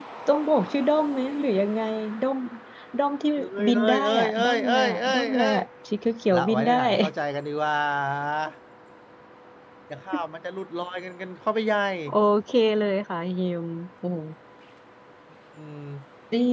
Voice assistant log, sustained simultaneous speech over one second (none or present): present